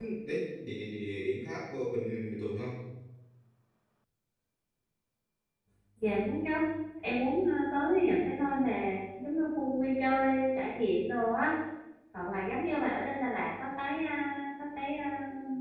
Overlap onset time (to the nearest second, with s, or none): none